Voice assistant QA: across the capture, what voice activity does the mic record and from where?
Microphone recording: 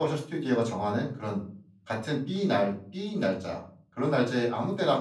user only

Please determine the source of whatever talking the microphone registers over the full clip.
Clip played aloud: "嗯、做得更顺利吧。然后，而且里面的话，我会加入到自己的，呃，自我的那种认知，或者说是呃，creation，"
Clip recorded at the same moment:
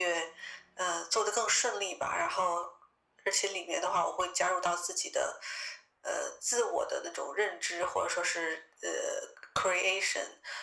echo only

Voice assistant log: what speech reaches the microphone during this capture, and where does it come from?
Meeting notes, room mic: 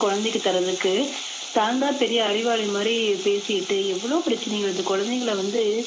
echo only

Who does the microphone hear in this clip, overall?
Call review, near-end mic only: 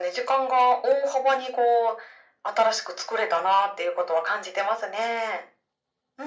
echo only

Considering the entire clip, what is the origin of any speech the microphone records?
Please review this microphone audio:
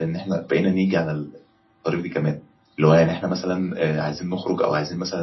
user only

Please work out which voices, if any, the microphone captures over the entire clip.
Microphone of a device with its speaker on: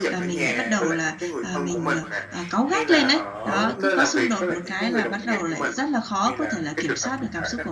both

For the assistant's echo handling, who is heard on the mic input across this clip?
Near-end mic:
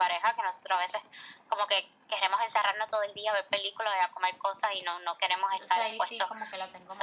both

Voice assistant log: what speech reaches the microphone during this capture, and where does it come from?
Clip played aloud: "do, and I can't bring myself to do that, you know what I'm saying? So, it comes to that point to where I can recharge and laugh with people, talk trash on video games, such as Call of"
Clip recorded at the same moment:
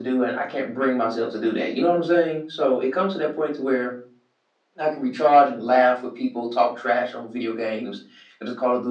echo only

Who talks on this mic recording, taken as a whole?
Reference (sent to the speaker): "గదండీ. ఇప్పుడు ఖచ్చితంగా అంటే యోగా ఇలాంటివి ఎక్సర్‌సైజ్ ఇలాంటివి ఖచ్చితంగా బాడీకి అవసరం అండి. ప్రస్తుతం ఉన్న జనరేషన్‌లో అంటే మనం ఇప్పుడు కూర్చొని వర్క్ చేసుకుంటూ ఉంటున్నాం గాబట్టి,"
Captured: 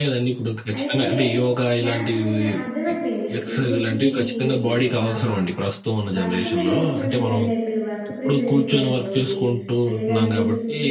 both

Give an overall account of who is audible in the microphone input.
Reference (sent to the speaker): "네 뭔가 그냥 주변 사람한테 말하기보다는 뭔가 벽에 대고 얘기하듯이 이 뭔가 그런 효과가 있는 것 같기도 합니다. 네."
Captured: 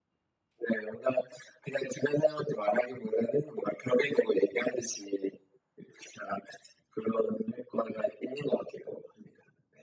echo only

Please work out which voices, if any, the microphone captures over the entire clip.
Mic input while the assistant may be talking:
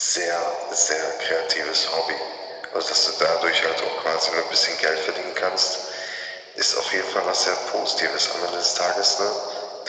echo only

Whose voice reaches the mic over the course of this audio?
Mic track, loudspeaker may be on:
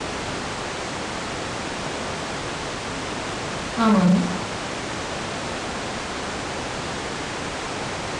user only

